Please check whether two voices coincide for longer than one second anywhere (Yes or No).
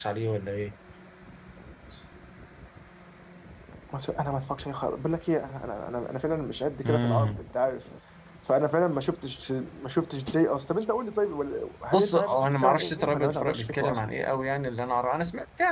Yes